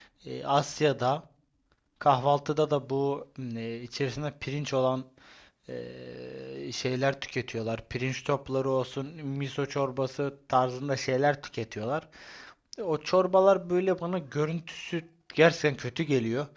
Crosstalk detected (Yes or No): No